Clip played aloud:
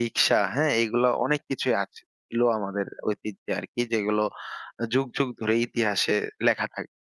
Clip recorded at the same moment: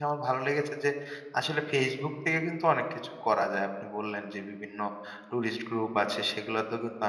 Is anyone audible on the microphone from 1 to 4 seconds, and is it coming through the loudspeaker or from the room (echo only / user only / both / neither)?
user only